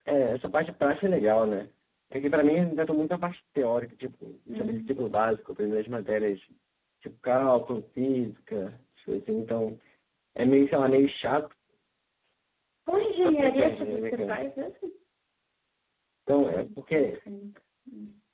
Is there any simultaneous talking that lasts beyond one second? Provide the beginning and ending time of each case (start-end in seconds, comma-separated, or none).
13.2-14.4